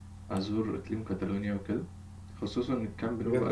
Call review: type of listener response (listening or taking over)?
taking over